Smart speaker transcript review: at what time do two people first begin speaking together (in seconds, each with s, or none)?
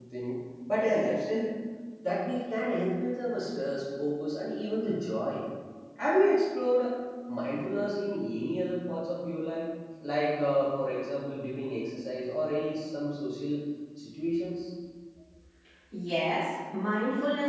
none